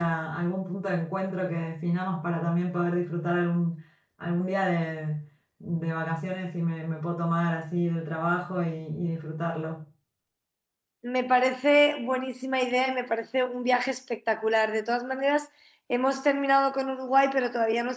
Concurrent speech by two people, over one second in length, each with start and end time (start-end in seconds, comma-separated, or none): none